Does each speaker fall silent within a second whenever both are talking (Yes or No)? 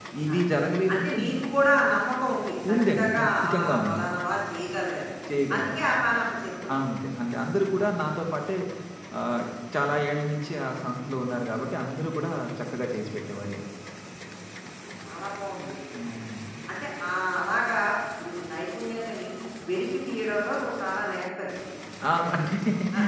No